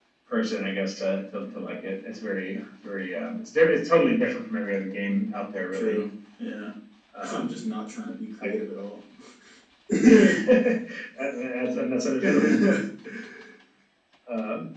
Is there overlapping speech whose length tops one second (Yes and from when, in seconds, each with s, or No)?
No